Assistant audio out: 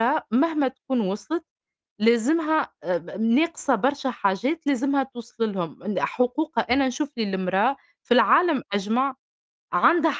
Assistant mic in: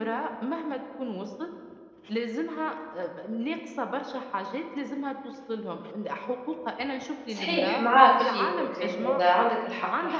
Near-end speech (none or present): present